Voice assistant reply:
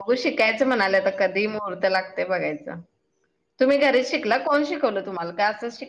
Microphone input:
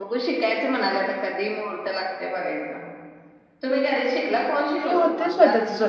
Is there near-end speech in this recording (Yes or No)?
Yes